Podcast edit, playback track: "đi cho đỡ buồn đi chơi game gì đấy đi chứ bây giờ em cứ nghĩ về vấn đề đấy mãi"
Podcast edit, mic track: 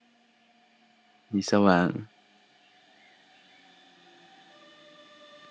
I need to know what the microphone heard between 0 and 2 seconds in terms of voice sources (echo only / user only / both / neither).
user only